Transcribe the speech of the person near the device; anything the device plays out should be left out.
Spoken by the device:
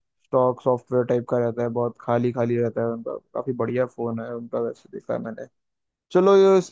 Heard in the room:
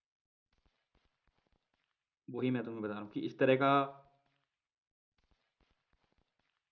वही मैं तुम्हें बता रहा हूँ कि इस तरह का

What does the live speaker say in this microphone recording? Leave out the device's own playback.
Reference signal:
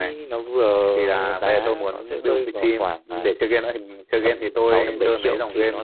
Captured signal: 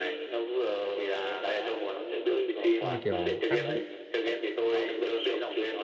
nhưng mà kiểu tác vụ

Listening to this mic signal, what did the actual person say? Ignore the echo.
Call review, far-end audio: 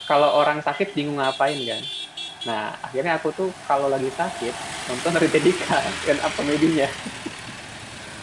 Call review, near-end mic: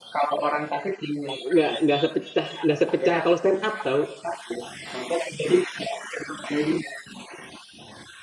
nggak nggak sepecah nggak sepecah kalau stand up tau

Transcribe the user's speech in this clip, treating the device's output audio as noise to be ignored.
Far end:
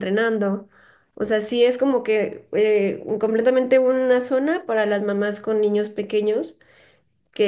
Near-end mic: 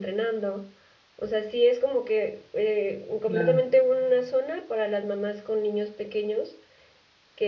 claro,

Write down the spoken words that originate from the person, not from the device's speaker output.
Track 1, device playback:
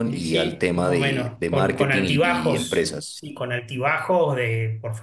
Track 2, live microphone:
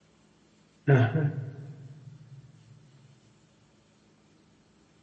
Ajá,

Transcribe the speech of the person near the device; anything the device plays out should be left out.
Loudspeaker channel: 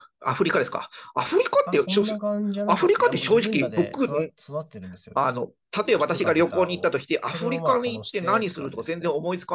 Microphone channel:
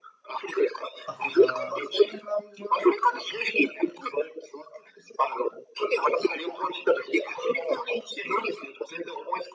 アフリカ、あ

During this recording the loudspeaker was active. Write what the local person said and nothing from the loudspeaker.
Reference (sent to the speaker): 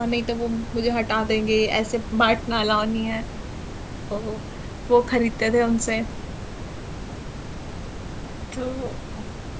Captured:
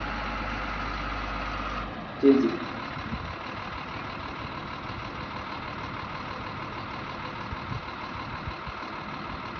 जी जी

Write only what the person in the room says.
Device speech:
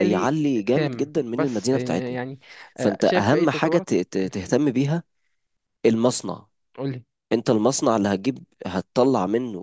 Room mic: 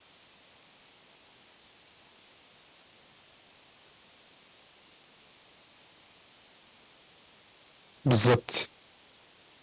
بالظبط

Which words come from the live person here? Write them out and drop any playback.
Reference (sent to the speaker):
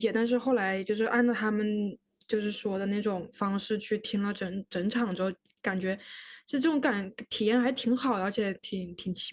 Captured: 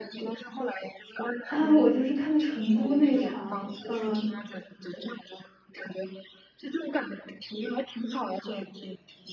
啊，我就是看的成都那场，嗯，

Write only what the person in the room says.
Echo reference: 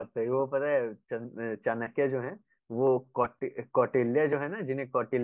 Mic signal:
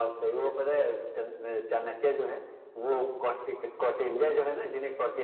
none

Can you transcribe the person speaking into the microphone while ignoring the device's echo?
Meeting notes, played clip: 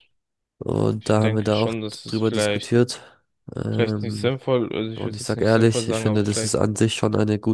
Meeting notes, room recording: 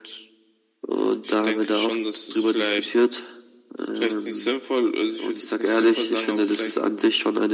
none

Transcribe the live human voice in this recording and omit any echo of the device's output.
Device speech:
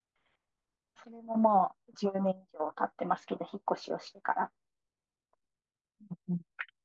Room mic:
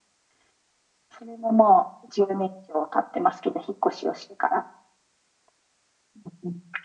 none

